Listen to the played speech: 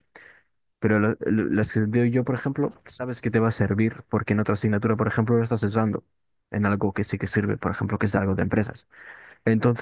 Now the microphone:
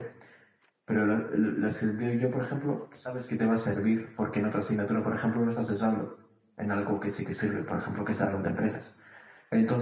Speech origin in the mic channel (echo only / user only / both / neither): echo only